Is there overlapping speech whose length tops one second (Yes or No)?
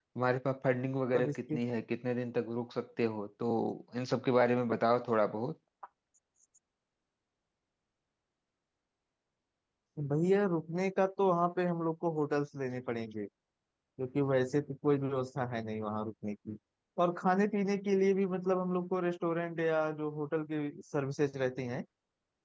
No